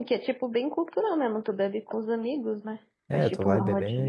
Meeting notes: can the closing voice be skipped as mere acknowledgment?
No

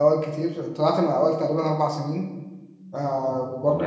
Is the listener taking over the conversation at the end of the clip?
No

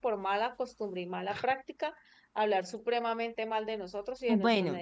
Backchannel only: No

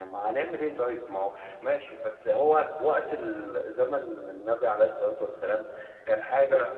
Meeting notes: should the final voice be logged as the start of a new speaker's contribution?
No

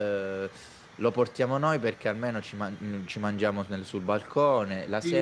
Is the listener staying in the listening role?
No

